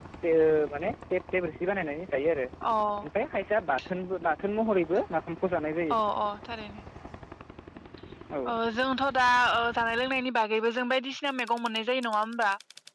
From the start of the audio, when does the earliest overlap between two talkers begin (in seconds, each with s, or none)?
none